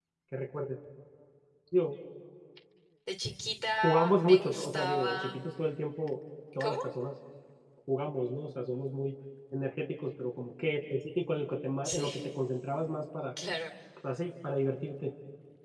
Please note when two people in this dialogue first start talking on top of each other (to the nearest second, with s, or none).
4 s